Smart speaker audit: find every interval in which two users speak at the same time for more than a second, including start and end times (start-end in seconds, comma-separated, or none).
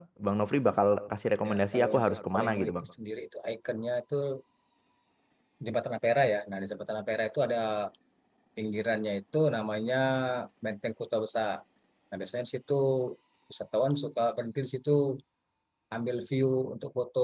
1.4-2.7